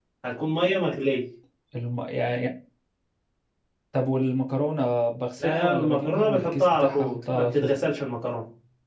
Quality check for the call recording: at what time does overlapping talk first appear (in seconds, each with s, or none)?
5.4 s